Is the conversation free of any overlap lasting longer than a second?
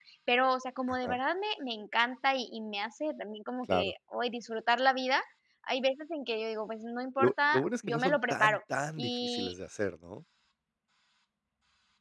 No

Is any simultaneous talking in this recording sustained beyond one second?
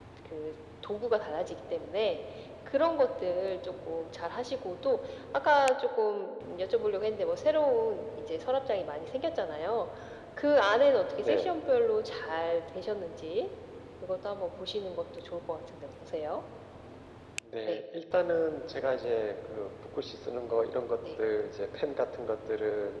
No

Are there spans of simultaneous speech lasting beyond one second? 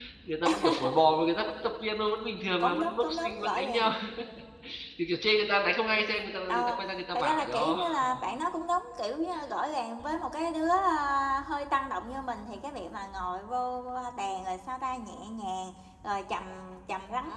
Yes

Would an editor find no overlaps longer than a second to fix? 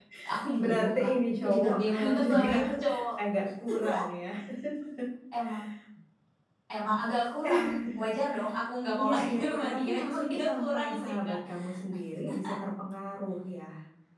No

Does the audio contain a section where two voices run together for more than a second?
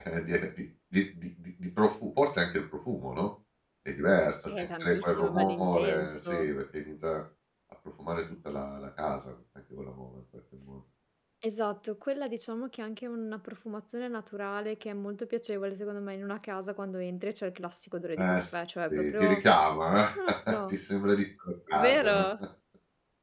Yes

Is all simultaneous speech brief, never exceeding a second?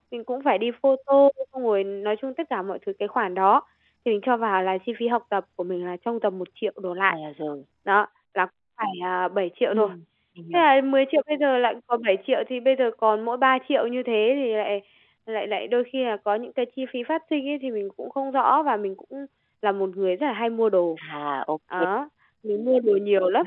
Yes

